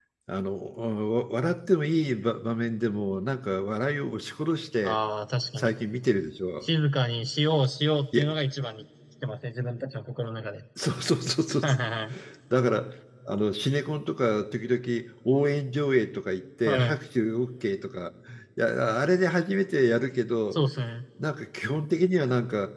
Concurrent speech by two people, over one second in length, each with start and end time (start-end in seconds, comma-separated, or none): none